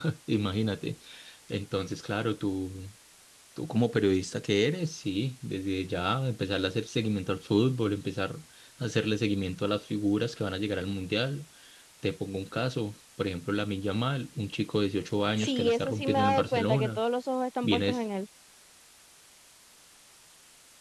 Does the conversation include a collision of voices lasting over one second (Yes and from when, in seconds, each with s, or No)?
Yes, from 15.4 s